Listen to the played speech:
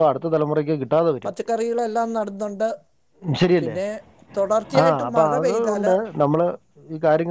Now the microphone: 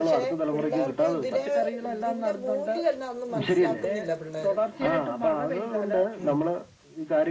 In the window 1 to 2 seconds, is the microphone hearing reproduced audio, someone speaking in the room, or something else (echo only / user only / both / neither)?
both